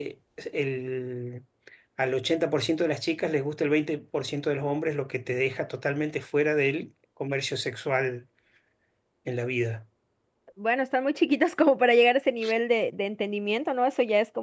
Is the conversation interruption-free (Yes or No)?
Yes